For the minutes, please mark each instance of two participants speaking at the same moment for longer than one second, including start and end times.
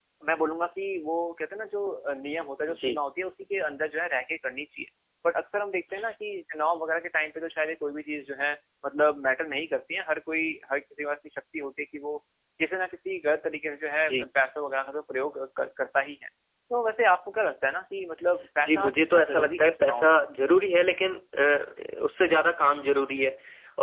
18.6-20.2

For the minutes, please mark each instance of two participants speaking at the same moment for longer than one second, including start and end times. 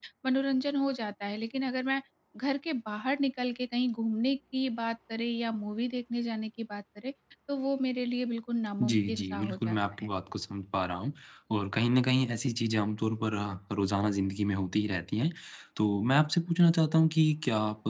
8.8-10.1

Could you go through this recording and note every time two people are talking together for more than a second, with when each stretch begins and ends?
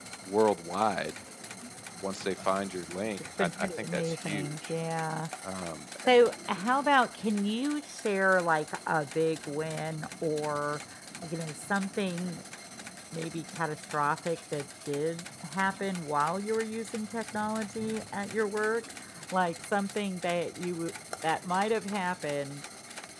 3.4-4.7

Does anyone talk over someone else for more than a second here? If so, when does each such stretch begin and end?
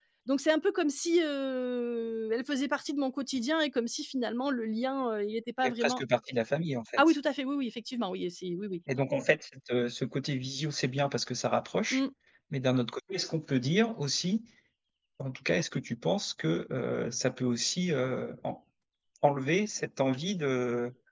none

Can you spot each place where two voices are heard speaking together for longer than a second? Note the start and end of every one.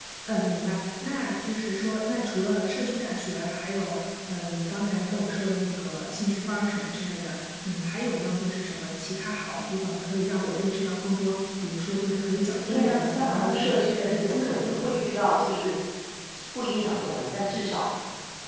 12.7-15.2

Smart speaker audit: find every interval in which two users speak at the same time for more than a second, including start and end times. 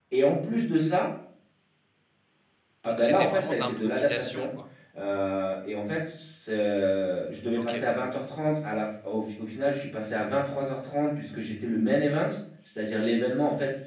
2.8-4.5

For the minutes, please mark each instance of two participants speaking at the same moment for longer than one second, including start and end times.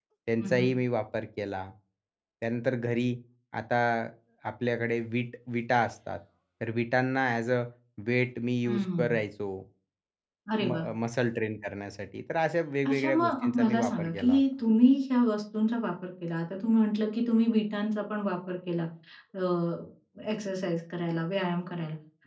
12.8-14.4

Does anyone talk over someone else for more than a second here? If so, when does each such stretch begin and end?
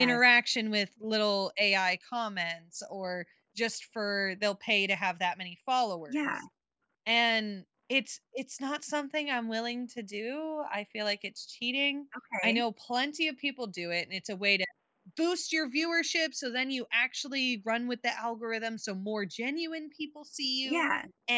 none

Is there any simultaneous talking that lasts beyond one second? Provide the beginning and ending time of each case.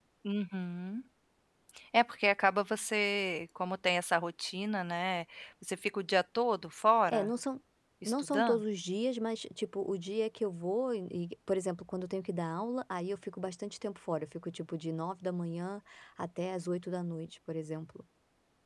none

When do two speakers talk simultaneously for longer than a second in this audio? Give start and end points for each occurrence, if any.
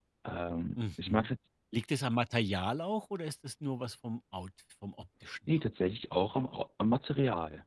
none

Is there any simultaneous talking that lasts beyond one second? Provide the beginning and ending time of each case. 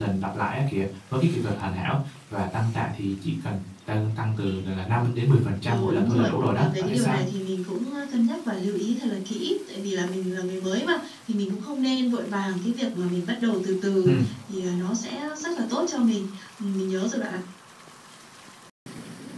5.7-7.2

